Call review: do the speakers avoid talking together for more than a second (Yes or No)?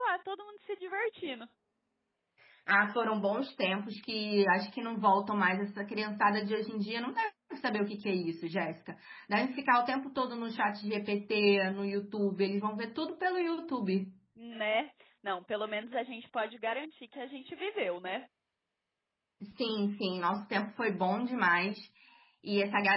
Yes